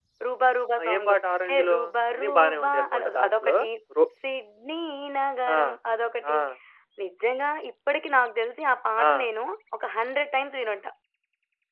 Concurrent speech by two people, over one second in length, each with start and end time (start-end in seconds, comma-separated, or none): 0.9-3.5